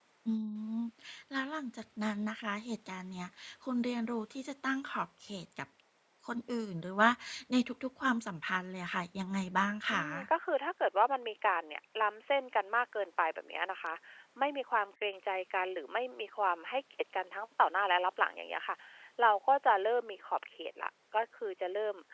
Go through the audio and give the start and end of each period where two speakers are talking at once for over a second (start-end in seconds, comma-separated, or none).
none